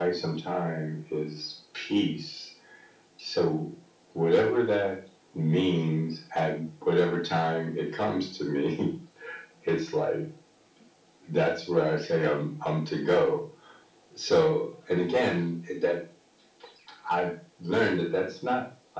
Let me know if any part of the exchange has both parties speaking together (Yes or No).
No